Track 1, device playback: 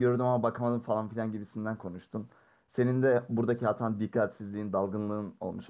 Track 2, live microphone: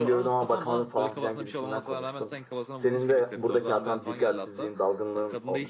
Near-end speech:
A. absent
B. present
B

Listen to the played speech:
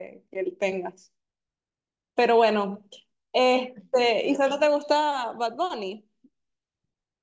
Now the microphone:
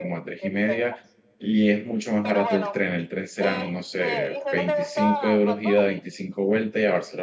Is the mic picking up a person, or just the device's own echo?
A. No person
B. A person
B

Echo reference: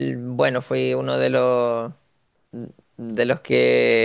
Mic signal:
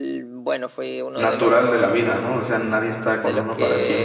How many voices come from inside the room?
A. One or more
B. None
A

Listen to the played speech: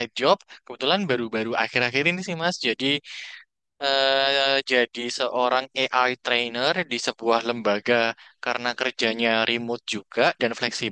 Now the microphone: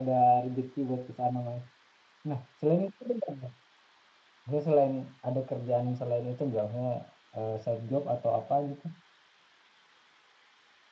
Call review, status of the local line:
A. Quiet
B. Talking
B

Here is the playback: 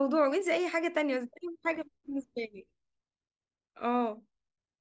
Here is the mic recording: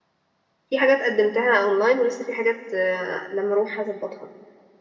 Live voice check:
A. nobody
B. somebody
B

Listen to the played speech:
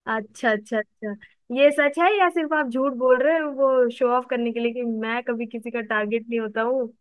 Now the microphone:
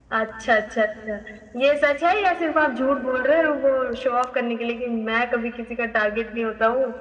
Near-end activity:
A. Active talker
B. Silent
B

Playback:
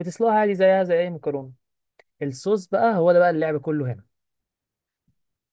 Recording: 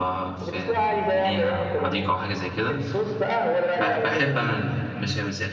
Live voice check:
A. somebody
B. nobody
A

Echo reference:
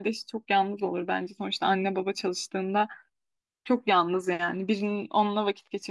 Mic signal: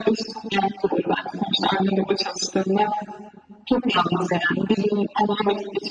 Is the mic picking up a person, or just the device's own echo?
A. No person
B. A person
A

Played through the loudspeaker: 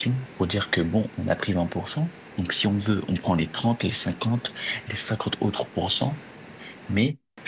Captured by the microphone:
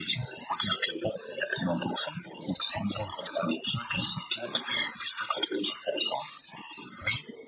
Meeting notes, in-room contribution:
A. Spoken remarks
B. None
B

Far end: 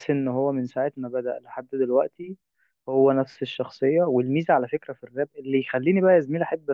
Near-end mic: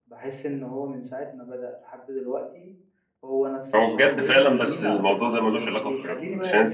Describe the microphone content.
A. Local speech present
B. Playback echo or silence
A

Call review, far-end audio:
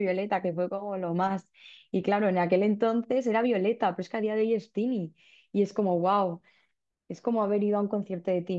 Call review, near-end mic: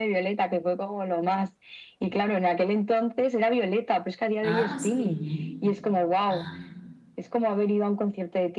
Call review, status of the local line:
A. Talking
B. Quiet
A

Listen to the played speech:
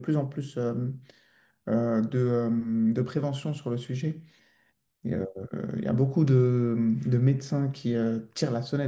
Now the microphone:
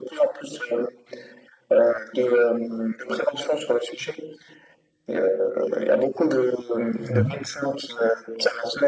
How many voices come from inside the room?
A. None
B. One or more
B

